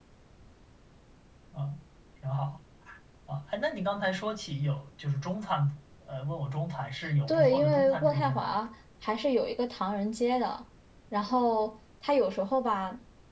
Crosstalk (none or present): present